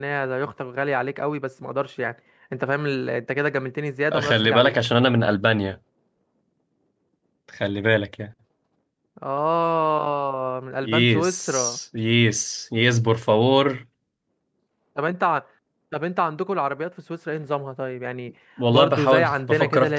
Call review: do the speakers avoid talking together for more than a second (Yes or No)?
No